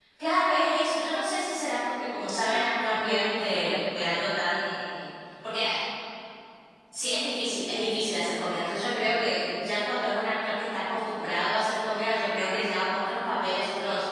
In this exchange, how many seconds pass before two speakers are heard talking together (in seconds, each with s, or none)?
2.9 s